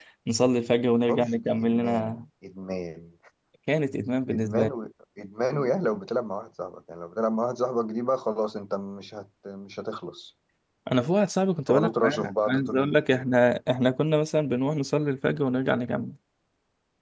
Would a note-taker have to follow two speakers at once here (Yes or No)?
Yes